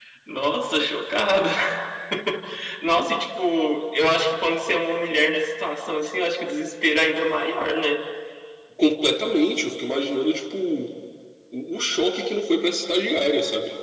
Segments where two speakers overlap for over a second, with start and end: none

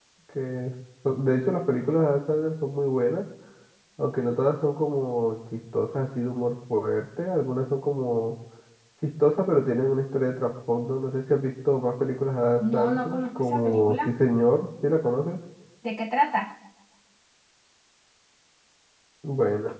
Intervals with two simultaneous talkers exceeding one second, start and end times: 12.6-14.1

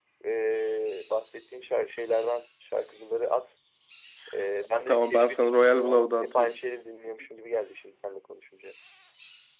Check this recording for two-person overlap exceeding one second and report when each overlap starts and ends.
4.9-6.5

